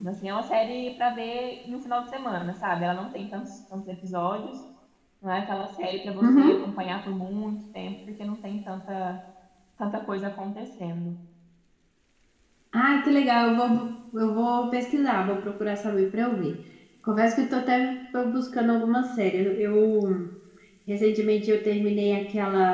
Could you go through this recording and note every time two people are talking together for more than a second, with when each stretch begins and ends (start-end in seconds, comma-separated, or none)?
none